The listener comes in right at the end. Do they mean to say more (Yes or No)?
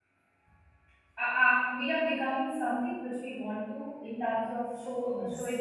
No